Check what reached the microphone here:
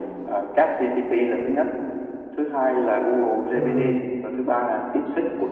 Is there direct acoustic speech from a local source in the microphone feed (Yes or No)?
Yes